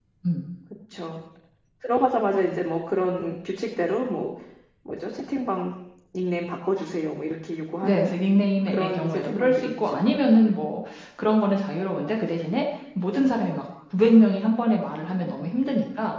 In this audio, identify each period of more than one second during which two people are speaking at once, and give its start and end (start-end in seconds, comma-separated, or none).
8.7-10.1